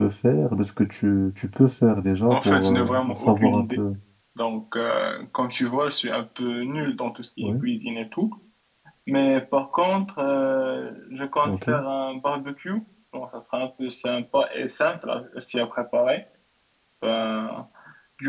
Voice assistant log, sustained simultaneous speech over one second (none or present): present